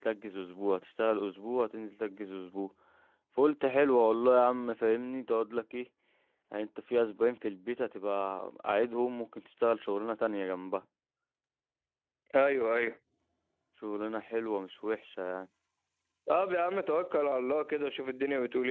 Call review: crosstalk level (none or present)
none